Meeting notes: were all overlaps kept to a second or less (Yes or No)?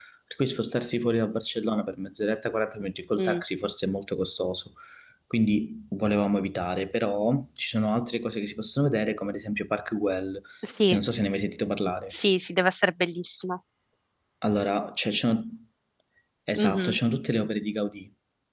Yes